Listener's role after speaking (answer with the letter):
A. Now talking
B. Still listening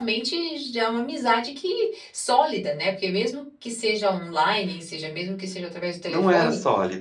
A